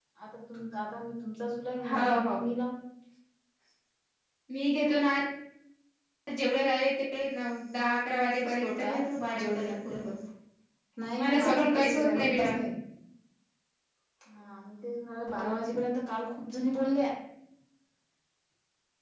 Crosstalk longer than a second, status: present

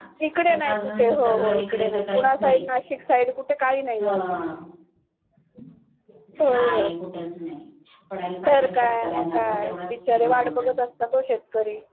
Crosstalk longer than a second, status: present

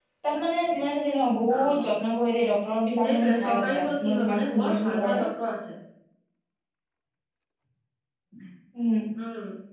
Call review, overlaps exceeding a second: present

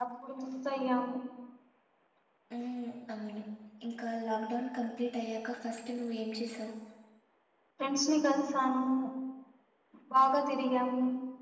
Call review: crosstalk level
none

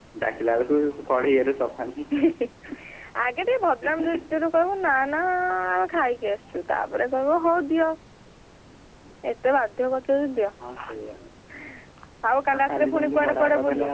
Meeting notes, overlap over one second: present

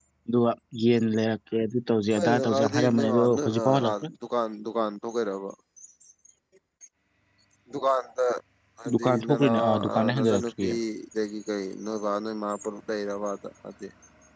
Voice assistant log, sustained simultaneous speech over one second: present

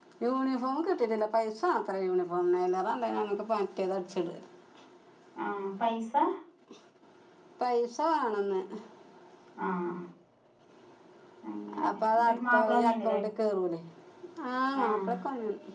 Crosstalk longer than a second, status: present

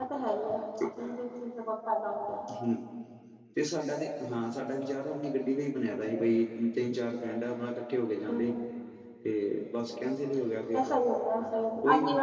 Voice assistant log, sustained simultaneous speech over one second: none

